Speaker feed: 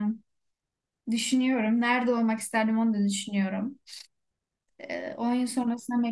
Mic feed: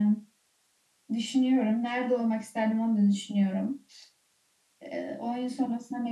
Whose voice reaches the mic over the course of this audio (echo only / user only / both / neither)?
echo only